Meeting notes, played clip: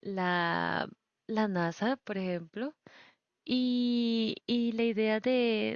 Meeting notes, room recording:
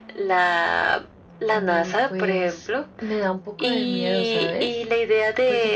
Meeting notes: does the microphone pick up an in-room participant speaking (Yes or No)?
Yes